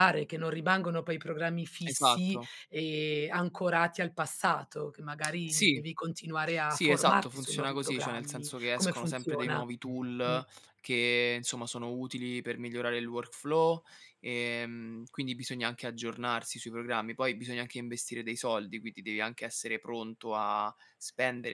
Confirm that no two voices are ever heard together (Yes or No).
No